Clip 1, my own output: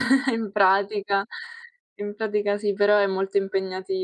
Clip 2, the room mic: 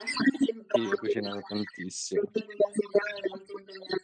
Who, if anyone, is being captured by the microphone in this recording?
both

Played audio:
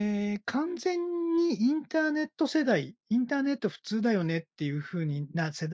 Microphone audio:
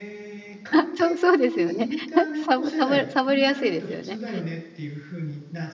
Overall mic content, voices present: both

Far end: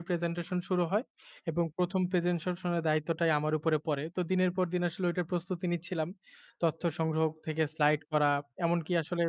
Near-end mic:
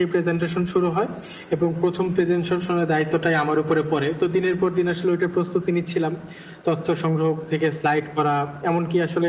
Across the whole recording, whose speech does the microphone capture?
echo only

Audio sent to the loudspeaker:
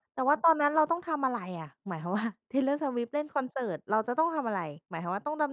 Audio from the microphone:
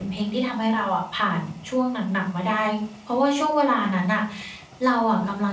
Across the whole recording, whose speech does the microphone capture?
user only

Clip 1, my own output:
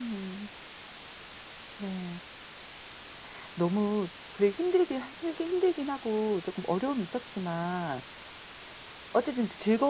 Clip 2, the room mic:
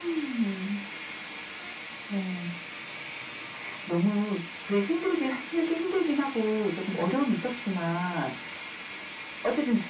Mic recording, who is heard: echo only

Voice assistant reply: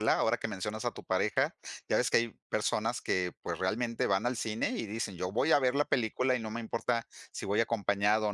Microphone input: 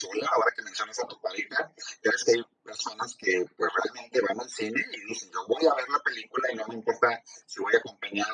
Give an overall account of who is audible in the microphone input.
echo only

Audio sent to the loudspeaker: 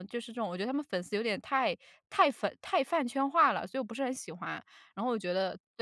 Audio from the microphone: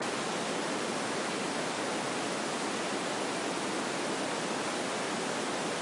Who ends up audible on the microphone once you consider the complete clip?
neither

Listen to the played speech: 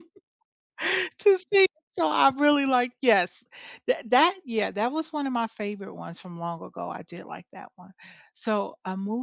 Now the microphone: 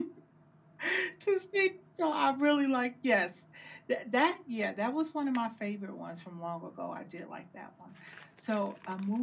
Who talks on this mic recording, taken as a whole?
echo only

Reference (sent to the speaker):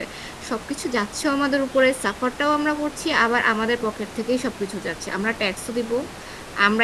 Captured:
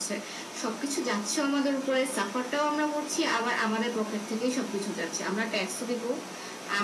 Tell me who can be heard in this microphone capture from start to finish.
echo only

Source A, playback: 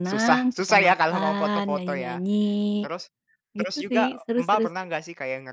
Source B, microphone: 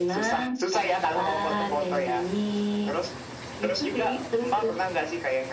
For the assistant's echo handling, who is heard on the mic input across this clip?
echo only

